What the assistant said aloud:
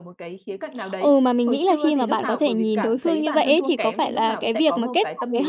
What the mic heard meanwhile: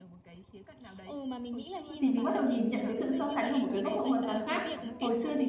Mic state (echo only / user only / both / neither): both